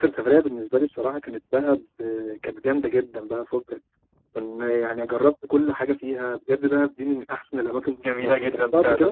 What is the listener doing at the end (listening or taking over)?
taking over